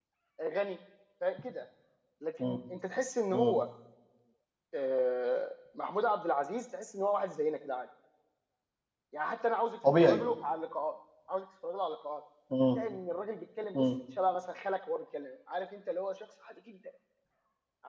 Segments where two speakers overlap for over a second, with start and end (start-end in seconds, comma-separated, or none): none